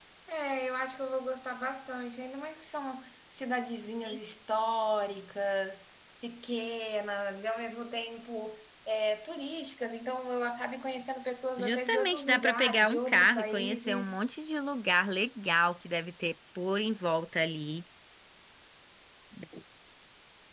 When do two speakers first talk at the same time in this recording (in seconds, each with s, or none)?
11.6 s